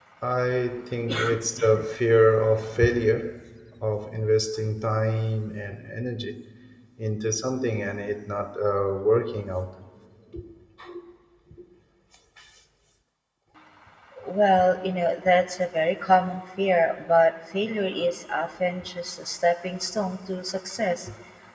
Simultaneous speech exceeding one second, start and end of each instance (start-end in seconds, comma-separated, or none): none